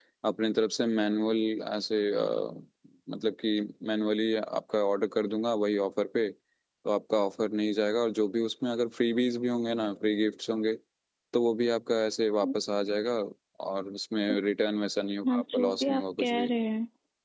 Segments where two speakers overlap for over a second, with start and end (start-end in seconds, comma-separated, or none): 15.3-16.5